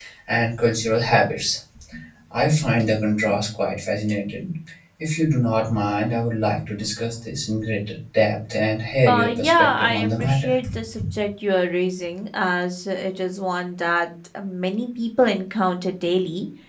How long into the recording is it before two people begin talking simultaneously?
9.1 s

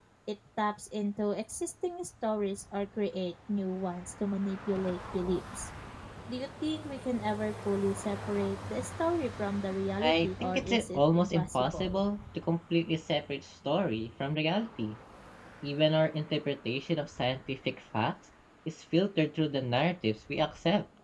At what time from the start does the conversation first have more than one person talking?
10.0 s

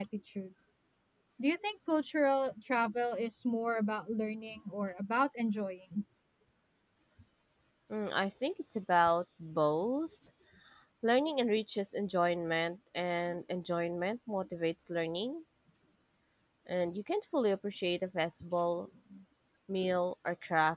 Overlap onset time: none

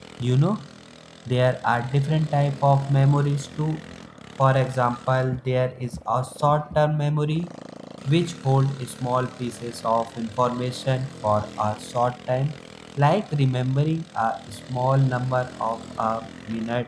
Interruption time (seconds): none

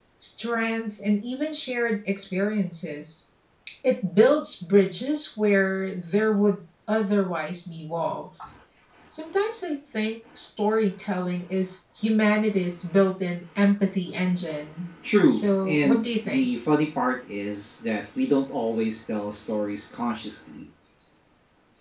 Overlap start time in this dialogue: 15.0 s

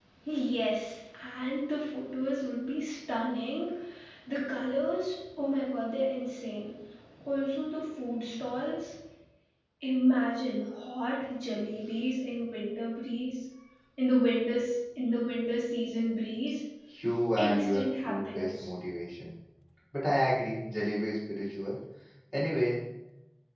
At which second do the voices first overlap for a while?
17.4 s

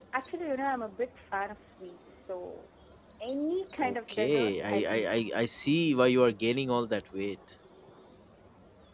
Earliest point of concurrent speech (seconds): 3.8 s

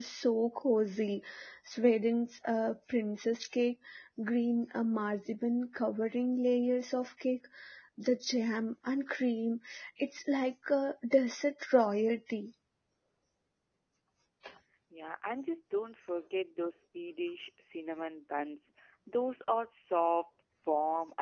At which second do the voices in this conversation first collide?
none

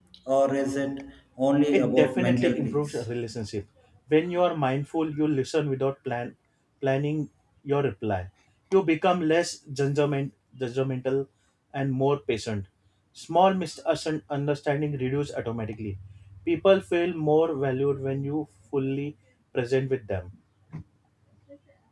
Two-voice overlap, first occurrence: 1.7 s

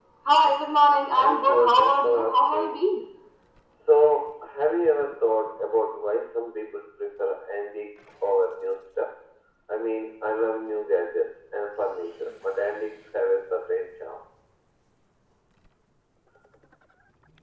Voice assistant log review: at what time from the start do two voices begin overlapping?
1.2 s

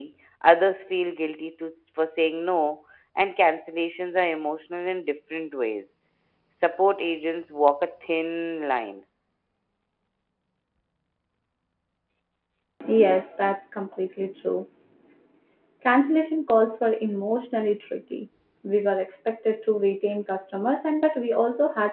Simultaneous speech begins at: none

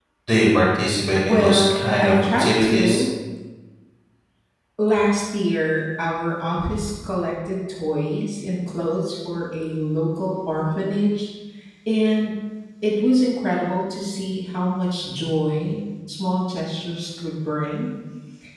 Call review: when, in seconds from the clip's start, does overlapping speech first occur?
1.2 s

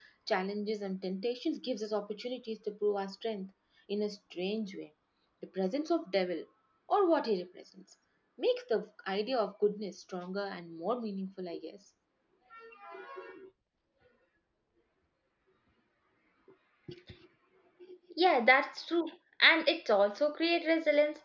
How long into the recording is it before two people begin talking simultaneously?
none

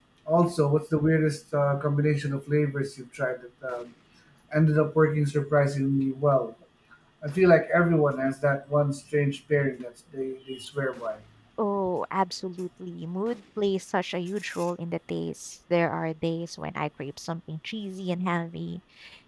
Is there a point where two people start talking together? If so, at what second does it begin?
none

